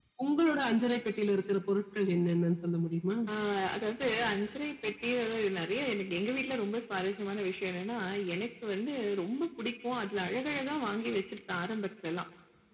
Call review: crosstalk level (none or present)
none